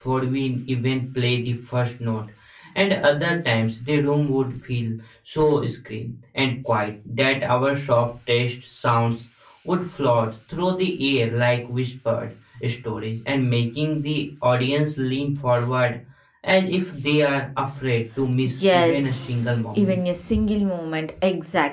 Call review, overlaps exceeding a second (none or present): present